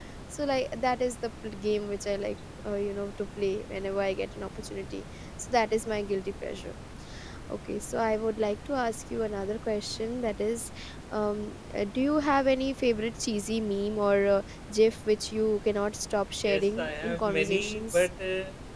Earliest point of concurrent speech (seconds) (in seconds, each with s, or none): 16.4 s